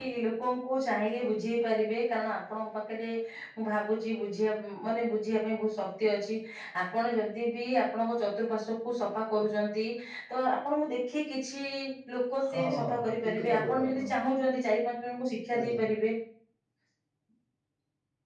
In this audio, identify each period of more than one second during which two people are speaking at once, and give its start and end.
12.5-14.0

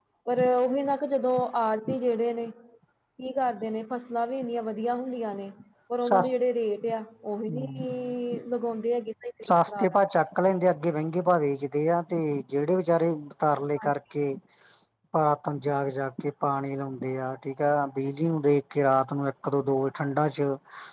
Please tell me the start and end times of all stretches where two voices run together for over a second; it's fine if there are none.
none

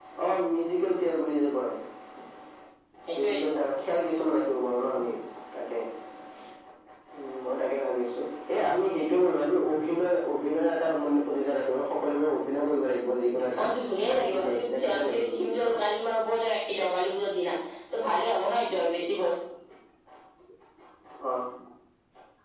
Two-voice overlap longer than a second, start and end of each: 14.1-15.8

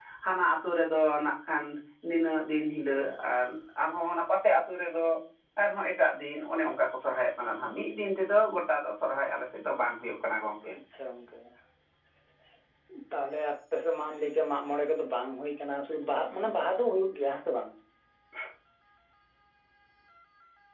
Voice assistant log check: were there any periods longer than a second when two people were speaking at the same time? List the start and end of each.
none

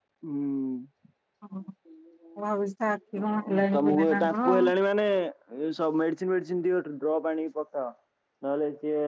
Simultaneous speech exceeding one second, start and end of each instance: 3.2-4.5

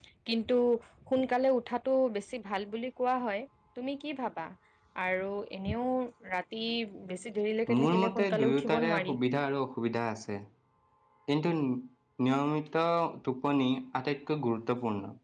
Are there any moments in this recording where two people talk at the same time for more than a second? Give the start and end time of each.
7.8-9.2

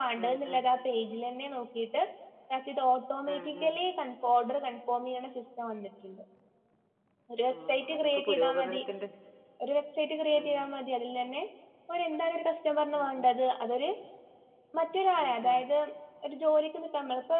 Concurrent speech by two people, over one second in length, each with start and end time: 7.5-8.8

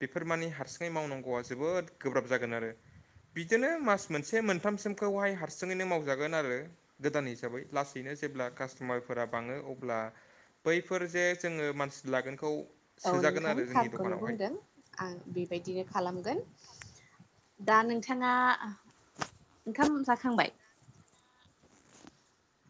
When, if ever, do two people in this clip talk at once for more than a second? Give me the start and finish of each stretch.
13.1-14.4

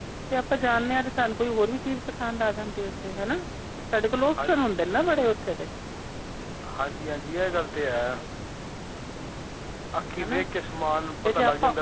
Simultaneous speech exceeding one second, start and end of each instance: none

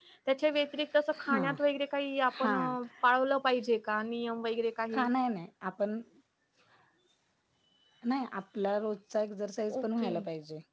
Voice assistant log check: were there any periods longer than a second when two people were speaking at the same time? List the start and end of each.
none

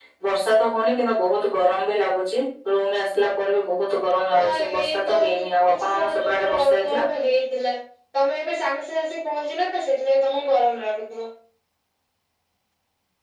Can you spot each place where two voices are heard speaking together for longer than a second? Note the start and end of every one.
4.3-7.0

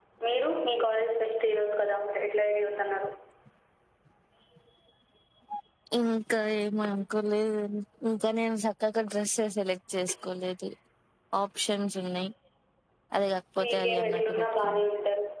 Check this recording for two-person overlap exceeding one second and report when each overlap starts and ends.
13.6-14.9

